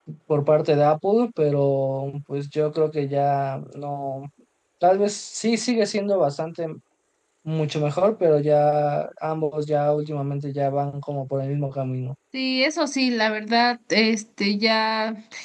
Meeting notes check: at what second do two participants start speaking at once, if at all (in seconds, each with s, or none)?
none